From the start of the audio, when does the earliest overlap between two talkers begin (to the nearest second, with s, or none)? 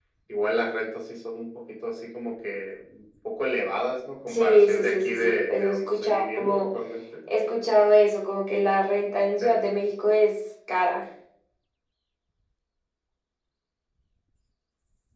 4 s